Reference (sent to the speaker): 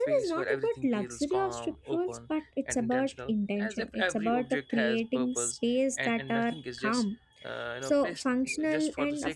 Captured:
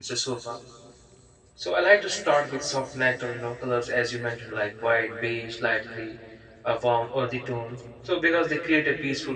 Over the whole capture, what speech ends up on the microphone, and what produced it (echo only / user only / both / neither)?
user only